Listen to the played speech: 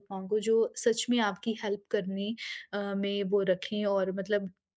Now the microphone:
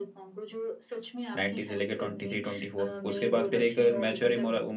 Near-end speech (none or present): present